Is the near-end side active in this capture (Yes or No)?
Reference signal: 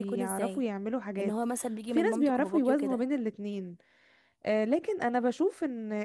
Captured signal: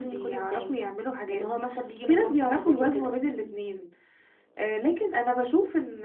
No